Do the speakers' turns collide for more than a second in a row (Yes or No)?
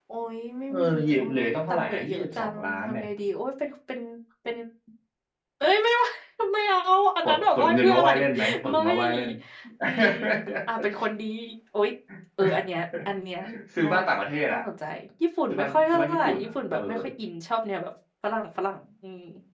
Yes